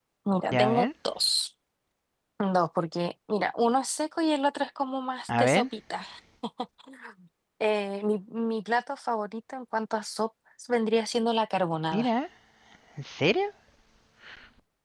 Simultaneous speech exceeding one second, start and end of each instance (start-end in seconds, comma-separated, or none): none